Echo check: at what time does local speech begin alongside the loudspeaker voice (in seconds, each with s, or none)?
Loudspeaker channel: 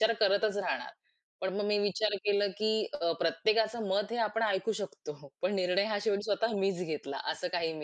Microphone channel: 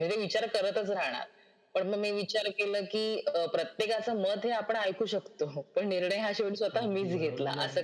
6.8 s